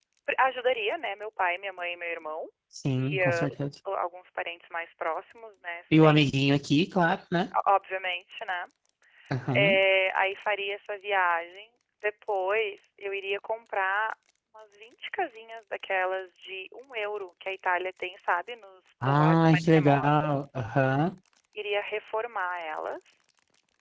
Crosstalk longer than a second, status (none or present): present